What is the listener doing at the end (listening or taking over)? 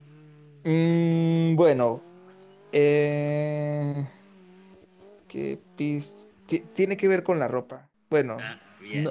listening